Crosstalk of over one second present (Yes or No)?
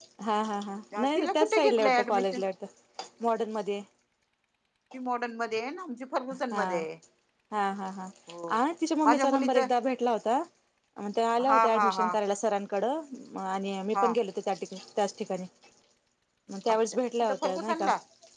Yes